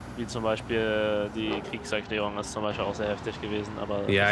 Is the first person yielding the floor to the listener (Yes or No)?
Yes